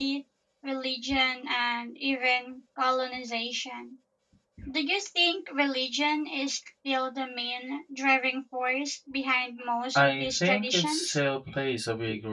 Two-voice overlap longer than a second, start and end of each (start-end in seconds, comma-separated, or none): 10.0-11.2